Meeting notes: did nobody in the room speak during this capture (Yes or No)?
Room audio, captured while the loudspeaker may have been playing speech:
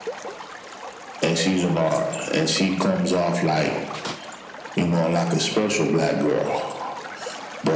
Yes